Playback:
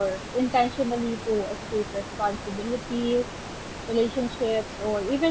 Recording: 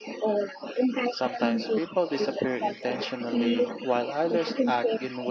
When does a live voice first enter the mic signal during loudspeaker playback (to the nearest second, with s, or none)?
1 s